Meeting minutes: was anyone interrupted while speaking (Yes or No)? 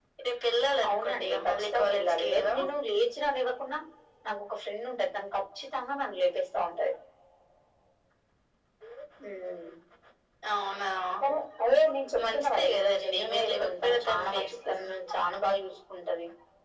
Yes